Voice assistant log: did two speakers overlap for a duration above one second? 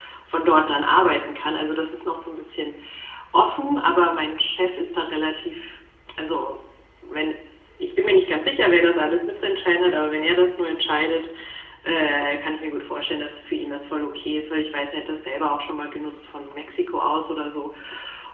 No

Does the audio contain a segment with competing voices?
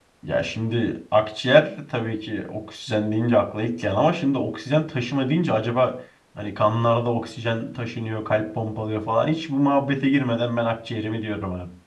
No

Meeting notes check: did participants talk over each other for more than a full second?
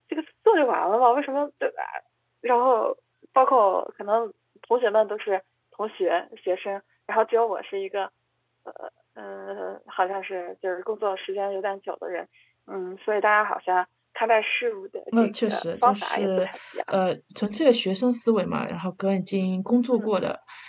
Yes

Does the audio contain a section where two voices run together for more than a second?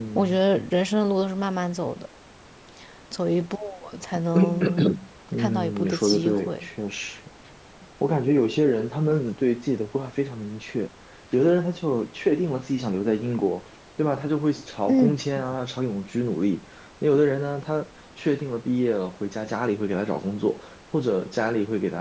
Yes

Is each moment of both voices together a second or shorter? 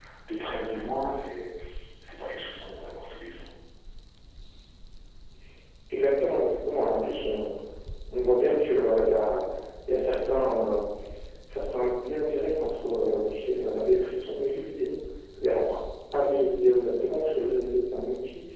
Yes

